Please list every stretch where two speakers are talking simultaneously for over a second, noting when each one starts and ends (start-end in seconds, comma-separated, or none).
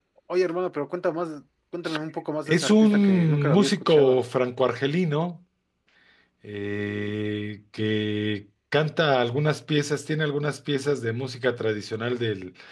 2.5-4.2